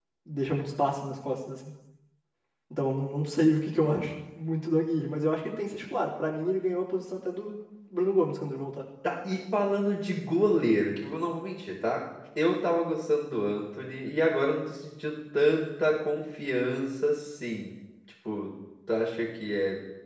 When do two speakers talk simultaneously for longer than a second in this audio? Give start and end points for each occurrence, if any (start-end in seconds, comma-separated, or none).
none